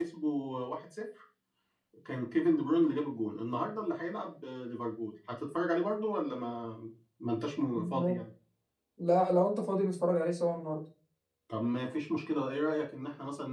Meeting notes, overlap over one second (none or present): none